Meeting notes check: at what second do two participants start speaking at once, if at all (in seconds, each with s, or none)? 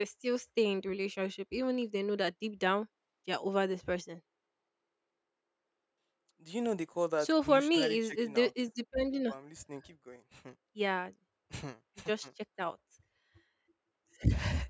7.2 s